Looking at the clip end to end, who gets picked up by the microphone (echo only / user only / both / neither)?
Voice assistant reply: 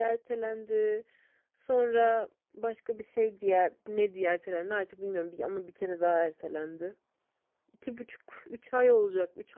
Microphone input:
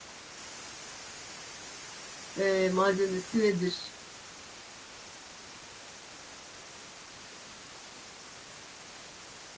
user only